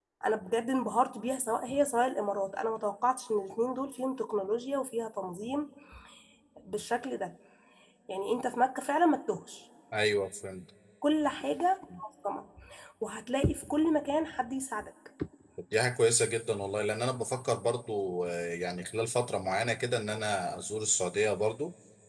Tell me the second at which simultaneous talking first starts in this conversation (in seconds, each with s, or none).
none